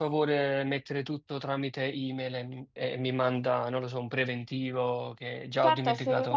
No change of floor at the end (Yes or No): No